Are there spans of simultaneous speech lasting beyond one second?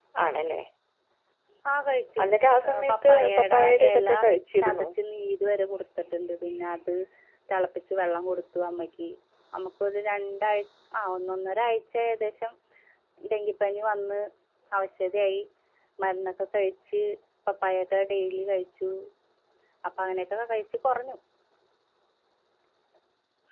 Yes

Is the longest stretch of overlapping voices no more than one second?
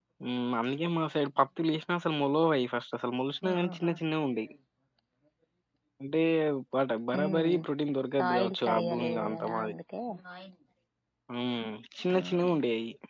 No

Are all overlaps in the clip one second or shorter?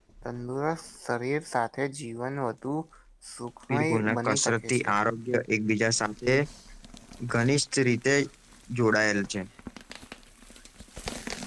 No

